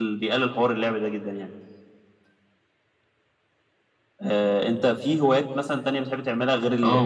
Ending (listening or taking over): taking over